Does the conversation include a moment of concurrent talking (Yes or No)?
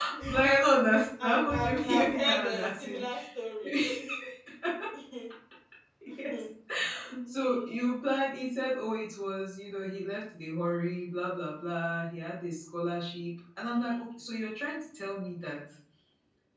Yes